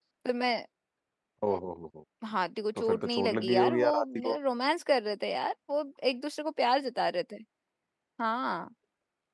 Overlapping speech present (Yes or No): Yes